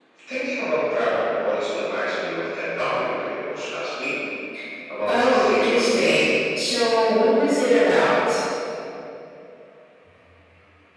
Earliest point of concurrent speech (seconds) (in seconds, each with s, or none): 5.1 s